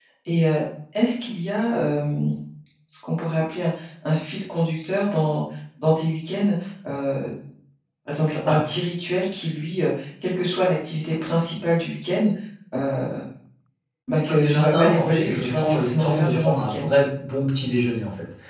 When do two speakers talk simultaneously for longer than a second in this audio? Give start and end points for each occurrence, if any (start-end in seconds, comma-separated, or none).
14.2-16.9